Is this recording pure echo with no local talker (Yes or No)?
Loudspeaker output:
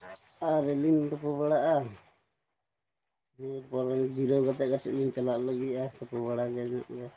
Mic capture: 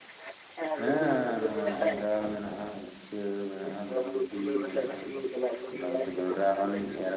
No